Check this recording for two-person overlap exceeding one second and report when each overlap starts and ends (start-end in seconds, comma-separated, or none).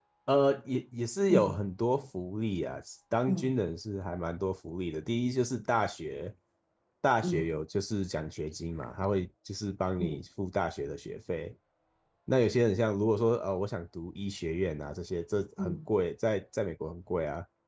none